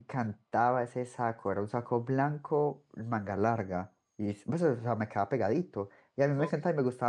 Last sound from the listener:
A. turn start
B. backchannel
B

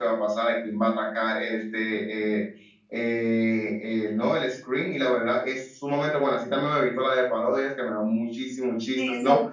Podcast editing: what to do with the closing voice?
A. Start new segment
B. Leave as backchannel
A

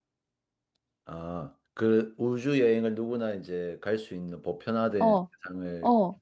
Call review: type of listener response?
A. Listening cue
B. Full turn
B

